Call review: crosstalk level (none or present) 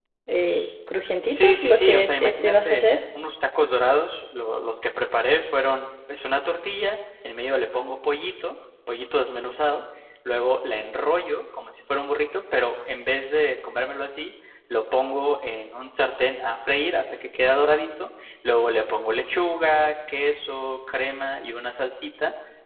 present